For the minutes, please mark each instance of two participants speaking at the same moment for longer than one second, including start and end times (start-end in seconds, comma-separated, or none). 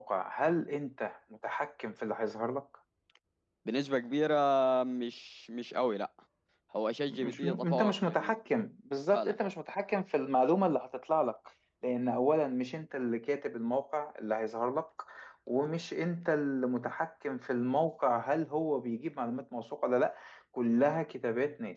7.1-8.3